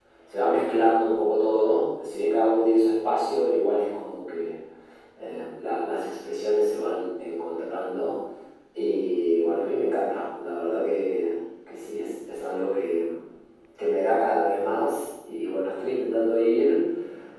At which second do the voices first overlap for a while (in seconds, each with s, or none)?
none